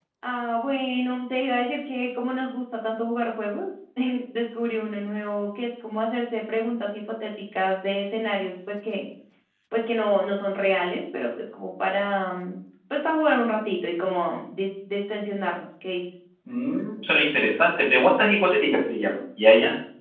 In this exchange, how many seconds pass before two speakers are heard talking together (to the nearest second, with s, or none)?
none